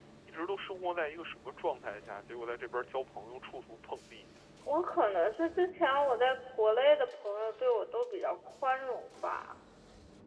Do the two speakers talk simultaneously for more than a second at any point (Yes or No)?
No